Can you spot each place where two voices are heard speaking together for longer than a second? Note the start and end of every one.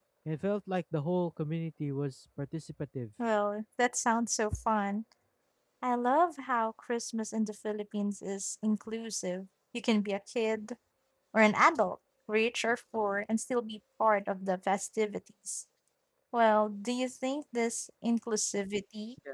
none

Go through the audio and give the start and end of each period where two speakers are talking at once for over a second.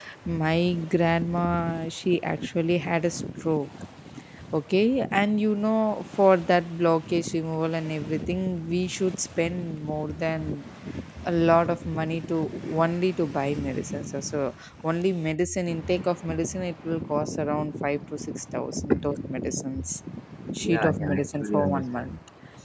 20.6-22.1

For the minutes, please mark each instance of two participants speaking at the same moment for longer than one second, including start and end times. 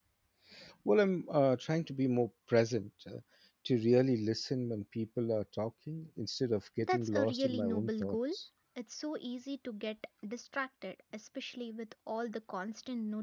6.8-8.2

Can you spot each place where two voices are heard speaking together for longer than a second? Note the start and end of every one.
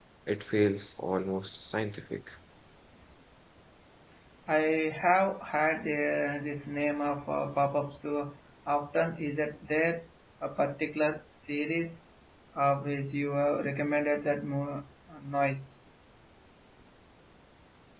none

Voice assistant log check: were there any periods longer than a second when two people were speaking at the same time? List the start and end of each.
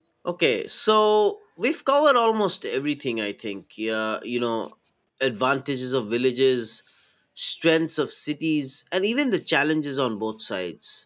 none

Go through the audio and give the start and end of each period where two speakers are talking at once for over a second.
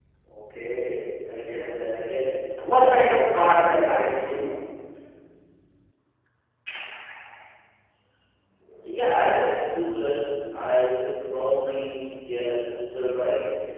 2.8-4.1

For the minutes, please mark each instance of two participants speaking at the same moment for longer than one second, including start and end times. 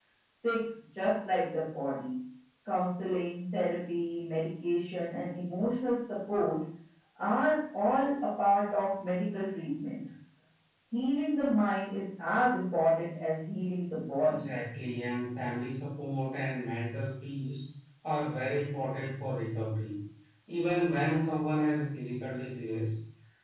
none

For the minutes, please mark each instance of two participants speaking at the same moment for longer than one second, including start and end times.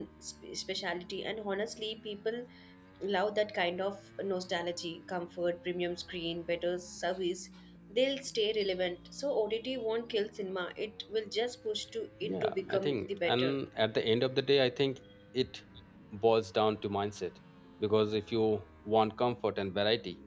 12.2-13.5

